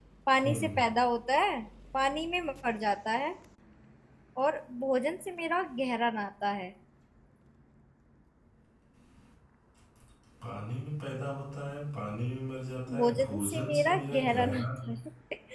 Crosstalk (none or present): present